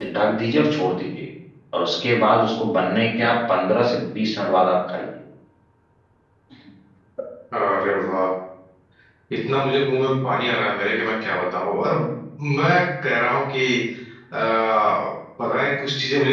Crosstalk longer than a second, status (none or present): none